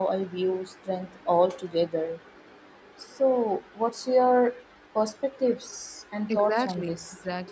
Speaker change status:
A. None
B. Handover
B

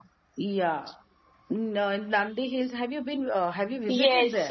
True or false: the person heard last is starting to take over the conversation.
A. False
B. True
B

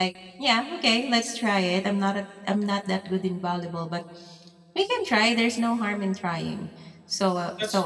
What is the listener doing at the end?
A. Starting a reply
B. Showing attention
B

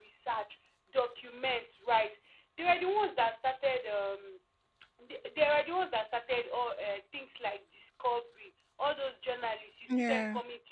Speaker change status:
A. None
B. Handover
A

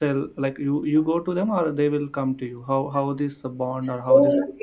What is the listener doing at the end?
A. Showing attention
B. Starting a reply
B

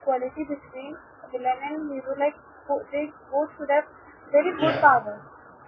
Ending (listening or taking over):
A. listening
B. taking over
A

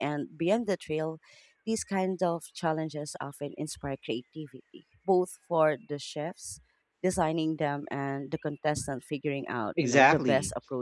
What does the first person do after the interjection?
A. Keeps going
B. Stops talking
B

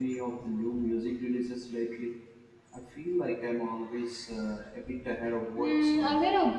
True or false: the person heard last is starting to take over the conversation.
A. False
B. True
B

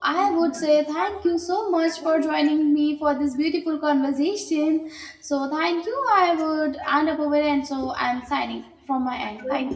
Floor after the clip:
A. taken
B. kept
A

